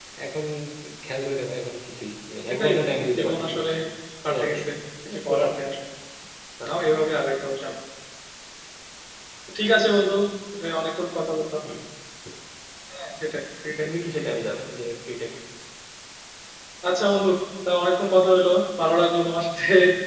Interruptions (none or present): present